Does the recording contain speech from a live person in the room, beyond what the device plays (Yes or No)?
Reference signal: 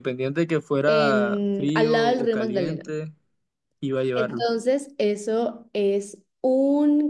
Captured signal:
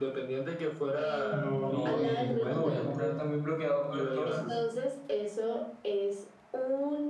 Yes